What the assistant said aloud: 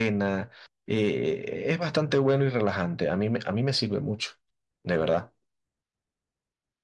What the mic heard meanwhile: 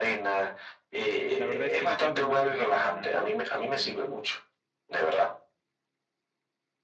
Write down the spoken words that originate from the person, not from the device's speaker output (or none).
la verdad es que ya me imaginé caminando en,